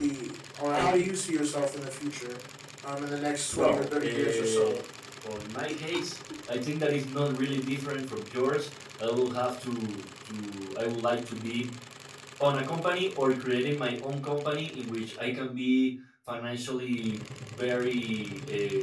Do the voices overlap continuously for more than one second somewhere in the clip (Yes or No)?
Yes